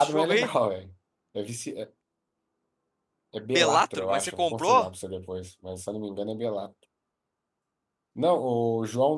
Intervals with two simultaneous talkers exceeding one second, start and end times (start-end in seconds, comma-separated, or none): 3.5-4.9